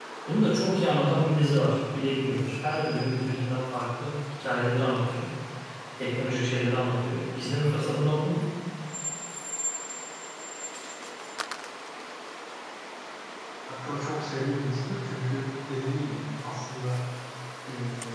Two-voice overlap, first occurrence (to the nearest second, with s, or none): none